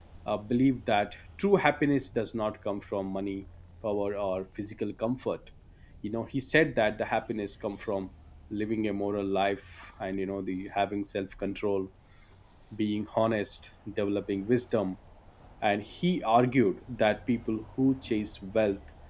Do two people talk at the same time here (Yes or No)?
No